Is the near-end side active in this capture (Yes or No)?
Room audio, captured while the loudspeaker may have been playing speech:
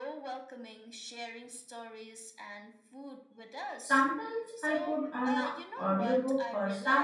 Yes